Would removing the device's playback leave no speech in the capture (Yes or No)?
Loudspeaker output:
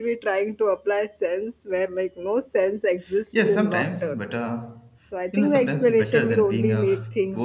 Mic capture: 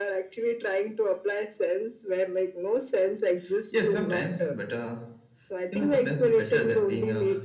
Yes